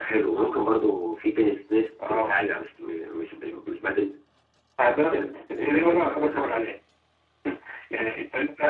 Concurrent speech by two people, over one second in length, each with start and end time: 5.0-6.5

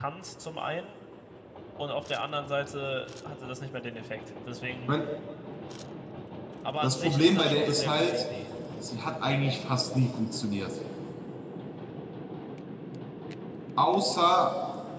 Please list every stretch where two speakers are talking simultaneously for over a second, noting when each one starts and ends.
6.8-8.2

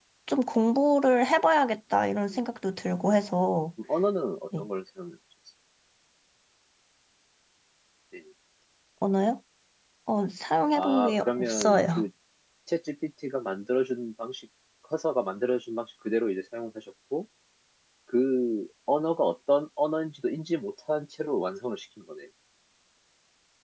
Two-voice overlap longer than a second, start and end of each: 10.7-12.1

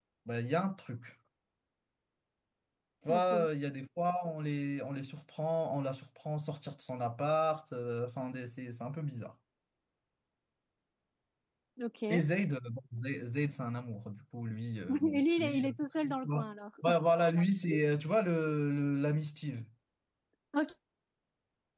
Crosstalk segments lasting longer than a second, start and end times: 14.9-16.5

